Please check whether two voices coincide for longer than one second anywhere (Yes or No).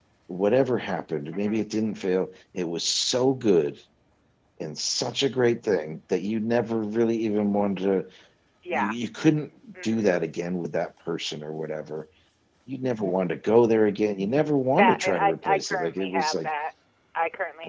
Yes